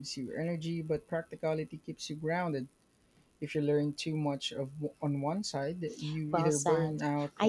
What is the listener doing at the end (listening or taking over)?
taking over